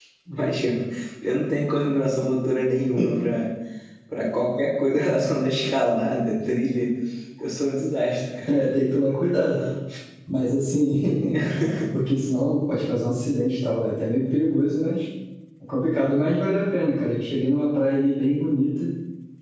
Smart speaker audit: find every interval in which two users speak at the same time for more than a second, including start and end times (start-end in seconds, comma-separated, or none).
none